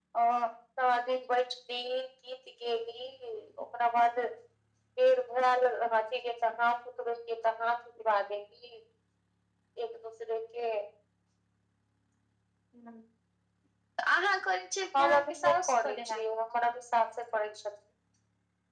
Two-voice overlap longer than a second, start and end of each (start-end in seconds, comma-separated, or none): 15.0-16.2